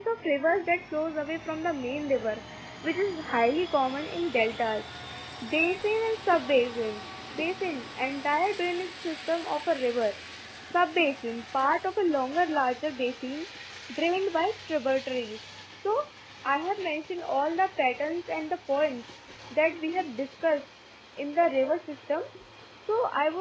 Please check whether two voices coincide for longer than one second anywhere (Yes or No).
No